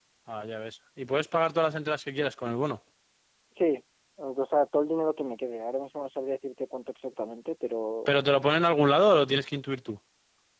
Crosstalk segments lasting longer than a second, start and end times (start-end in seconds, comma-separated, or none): none